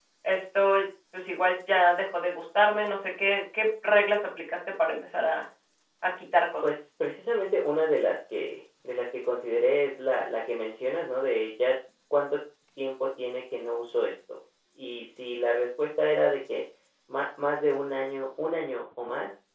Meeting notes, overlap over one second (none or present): none